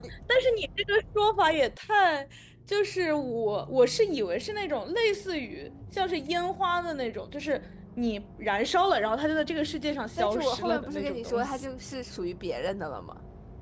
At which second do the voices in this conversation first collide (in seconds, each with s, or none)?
10.2 s